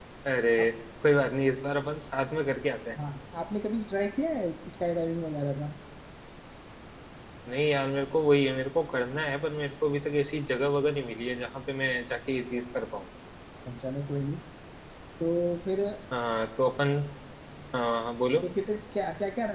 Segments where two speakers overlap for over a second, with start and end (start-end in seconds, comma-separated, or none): none